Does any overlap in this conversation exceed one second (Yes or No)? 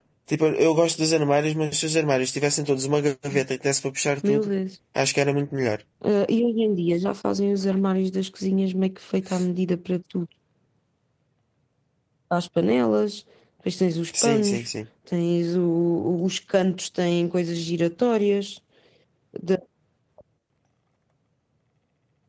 No